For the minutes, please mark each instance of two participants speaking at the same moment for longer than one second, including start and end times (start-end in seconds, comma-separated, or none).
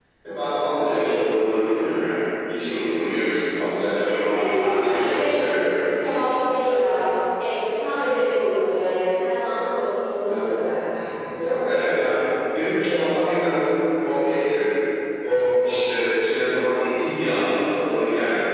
4.1-5.3